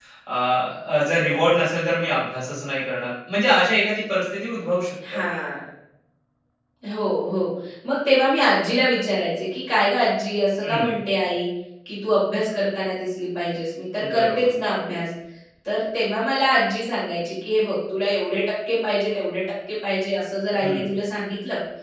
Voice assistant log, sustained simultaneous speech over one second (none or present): none